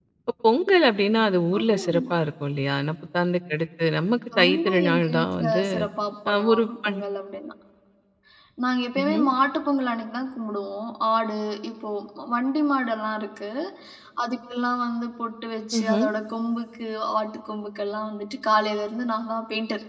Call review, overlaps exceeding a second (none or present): present